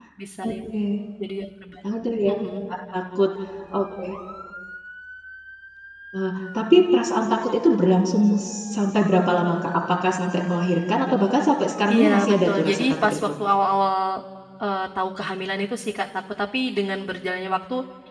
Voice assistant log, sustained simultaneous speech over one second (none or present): present